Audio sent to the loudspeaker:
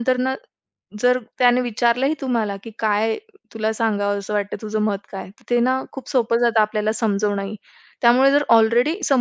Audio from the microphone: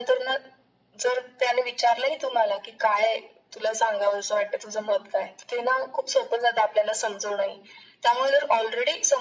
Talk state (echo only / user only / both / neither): echo only